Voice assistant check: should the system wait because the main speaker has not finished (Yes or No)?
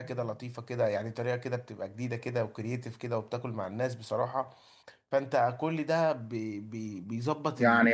No